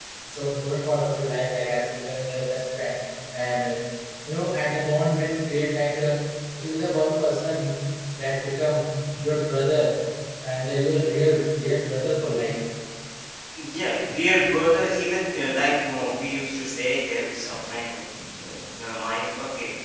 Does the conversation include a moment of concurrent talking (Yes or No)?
No